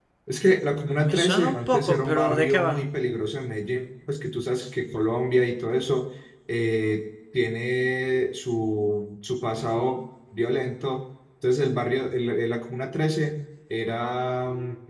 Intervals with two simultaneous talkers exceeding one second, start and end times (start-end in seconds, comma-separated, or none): 1.0-2.8